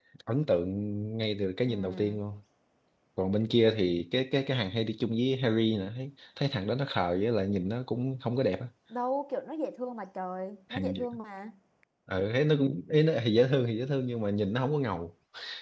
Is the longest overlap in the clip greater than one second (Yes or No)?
No